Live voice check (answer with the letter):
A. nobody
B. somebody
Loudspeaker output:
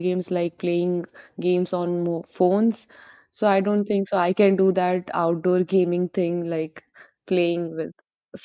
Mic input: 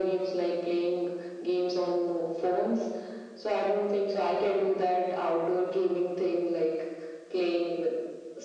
A